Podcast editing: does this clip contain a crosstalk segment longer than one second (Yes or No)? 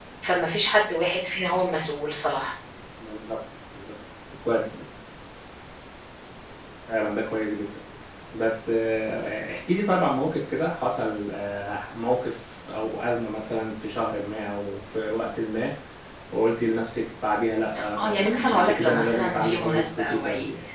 Yes